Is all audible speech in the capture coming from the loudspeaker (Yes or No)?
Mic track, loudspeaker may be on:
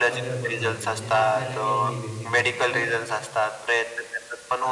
No